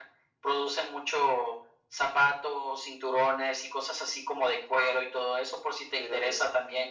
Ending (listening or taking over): listening